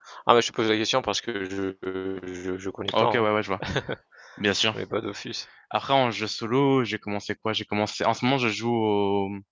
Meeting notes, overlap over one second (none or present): none